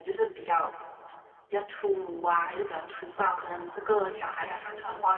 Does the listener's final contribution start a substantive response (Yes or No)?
No